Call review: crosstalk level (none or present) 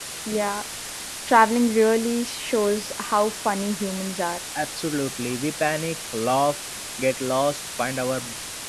none